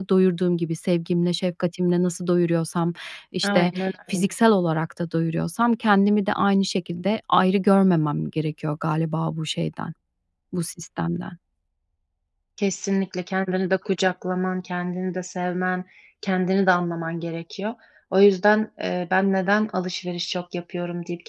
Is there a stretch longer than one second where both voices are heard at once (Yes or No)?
No